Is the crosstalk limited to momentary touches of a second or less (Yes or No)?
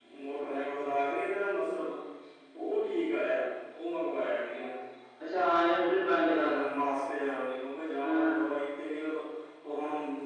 Yes